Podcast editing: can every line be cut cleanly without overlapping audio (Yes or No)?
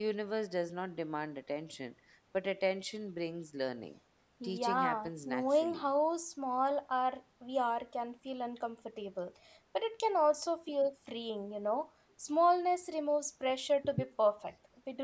No